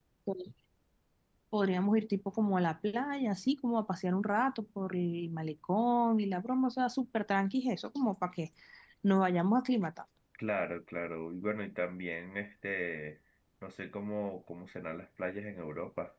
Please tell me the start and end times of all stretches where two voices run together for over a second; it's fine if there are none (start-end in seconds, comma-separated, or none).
none